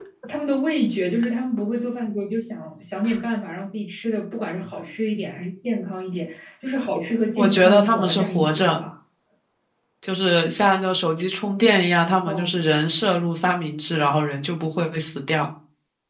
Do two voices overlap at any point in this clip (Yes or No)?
Yes